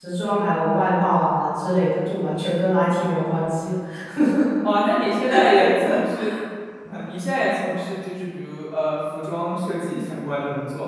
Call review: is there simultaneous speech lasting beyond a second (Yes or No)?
No